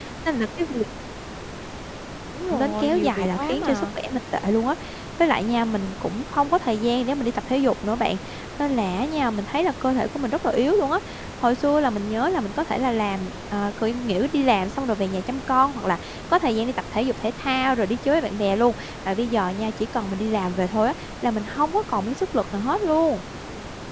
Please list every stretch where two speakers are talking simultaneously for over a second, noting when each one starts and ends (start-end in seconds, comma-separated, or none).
2.5-3.9